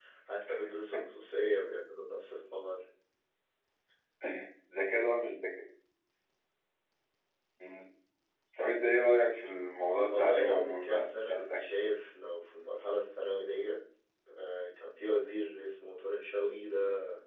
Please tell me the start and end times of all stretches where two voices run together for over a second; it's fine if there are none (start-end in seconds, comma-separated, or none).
10.1-11.6